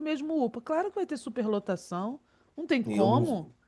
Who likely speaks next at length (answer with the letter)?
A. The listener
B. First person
A